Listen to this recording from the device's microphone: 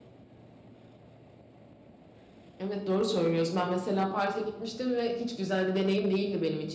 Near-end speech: present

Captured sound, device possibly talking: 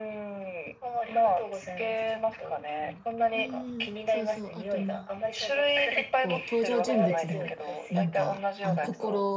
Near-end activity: present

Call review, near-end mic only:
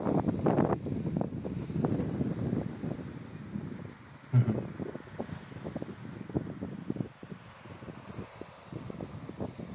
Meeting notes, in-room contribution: present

